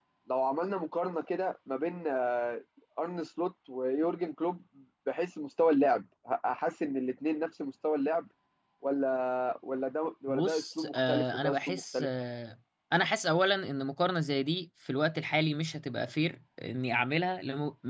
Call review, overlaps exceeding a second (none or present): present